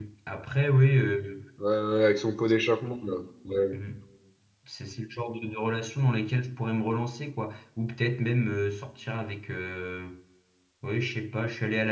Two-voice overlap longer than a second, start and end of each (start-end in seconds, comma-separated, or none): none